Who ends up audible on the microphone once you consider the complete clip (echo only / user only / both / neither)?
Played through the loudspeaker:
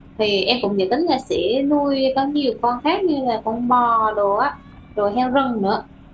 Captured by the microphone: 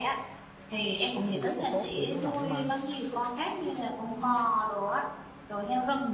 both